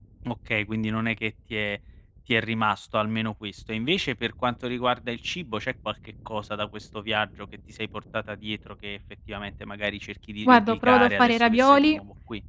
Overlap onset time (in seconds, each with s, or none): 10.4 s